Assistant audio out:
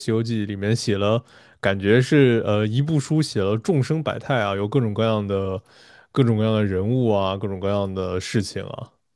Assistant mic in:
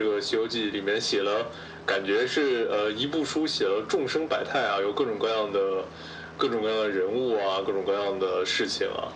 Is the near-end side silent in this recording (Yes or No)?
Yes